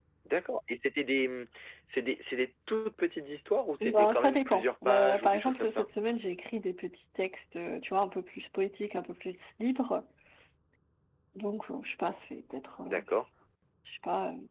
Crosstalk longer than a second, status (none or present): present